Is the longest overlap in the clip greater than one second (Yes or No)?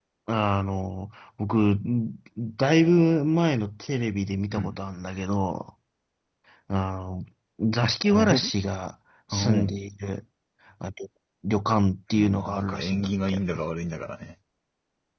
Yes